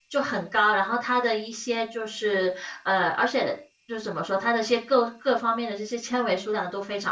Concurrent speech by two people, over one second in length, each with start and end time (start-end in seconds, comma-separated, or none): none